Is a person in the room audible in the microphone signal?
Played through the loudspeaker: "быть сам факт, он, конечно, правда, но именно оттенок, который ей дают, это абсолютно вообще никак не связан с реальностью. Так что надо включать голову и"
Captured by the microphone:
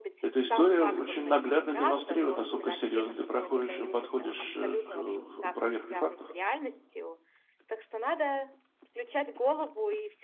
Yes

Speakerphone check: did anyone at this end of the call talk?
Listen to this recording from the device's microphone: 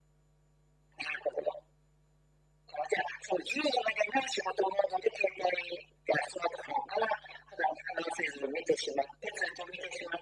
No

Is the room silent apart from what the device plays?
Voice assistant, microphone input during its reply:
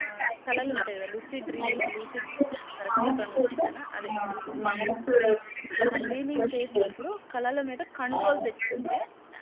No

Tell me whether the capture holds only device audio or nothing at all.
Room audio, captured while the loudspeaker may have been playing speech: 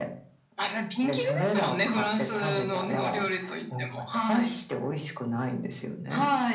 Yes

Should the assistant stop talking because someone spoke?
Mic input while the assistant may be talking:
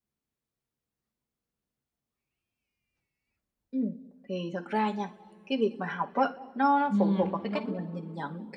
Yes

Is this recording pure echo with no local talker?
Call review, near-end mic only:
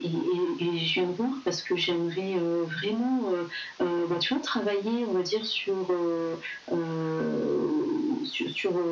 Yes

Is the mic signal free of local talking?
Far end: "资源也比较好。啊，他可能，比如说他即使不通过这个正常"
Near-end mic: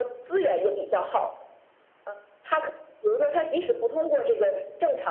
Yes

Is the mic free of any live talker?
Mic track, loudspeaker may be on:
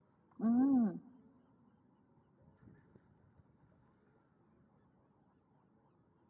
No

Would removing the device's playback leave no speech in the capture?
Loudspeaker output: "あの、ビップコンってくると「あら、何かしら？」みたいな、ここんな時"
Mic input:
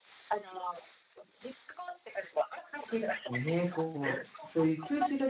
No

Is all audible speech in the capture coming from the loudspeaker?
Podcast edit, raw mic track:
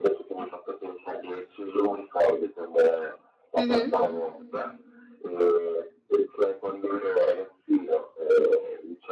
No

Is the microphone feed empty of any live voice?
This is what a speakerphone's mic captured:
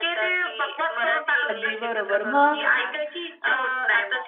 No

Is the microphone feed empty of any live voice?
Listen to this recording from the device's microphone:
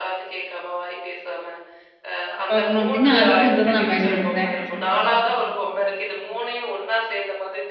No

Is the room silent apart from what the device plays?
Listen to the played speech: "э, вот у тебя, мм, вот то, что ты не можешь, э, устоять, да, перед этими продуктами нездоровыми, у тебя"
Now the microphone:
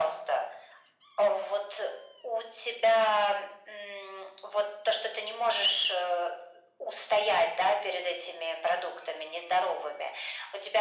Yes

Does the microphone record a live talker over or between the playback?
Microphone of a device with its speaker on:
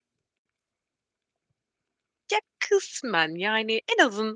Yes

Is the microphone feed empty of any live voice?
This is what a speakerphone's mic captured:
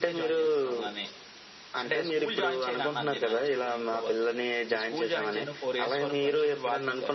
Yes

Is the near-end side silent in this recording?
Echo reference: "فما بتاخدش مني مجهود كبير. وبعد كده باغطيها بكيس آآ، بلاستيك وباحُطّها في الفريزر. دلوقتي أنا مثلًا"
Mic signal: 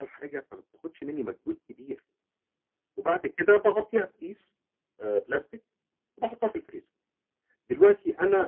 Yes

